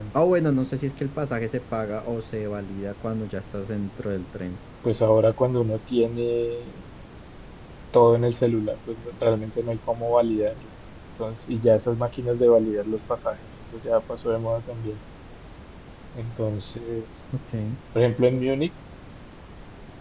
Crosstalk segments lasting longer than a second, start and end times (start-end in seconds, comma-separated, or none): none